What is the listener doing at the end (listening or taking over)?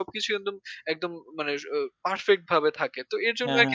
listening